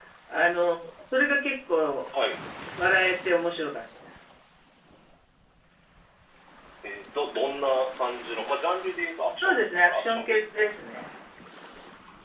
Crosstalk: present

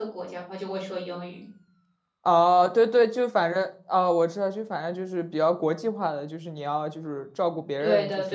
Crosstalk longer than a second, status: none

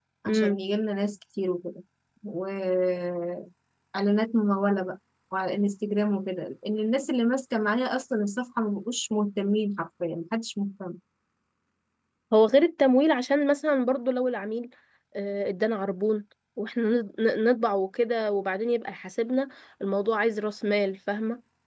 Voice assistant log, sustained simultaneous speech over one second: none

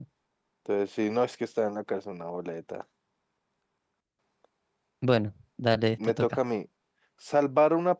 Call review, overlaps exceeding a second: none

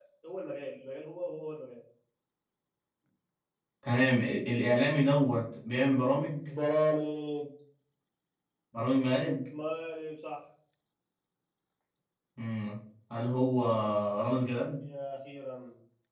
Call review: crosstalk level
none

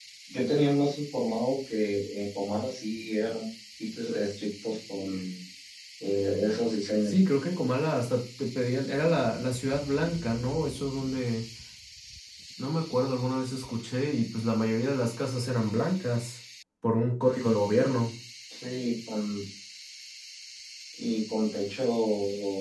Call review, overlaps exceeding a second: none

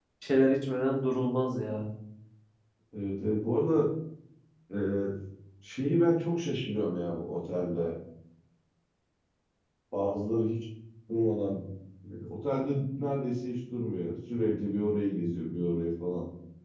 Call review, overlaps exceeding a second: none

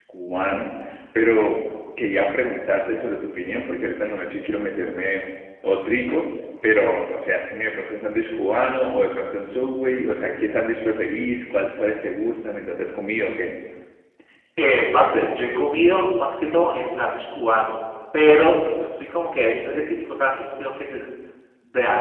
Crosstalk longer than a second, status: none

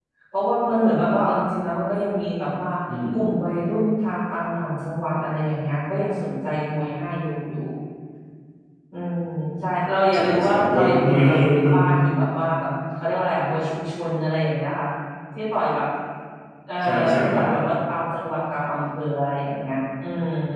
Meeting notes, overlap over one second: present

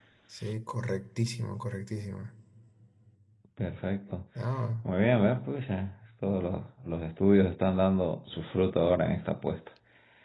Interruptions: none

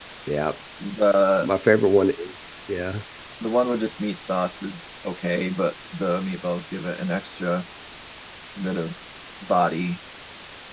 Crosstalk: none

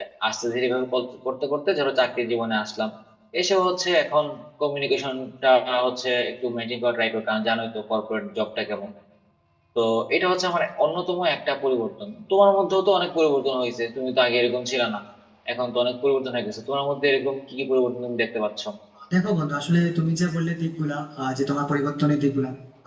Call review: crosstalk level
none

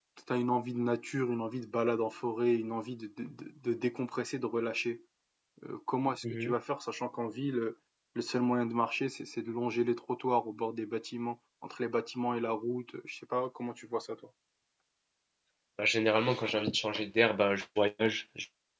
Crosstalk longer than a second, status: none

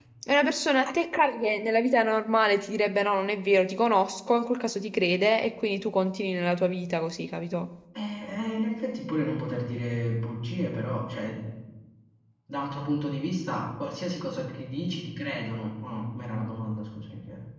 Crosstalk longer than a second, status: none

